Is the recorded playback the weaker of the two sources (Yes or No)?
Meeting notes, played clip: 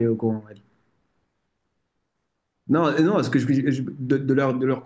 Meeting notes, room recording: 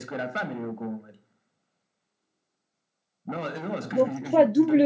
Yes